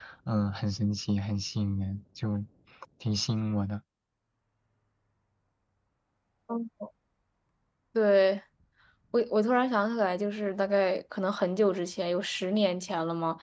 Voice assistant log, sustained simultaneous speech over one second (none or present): none